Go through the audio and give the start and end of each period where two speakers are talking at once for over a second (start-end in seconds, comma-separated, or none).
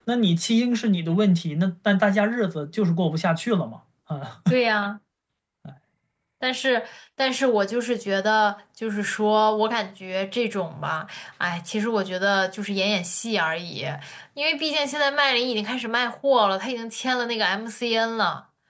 none